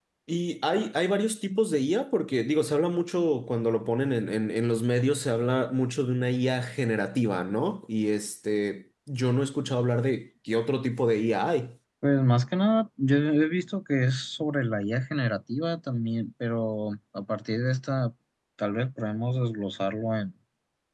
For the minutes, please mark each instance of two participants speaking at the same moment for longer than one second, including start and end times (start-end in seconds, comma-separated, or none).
none